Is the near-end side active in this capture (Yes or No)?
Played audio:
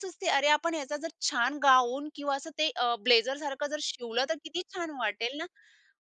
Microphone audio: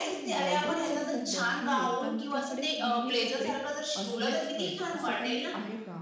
Yes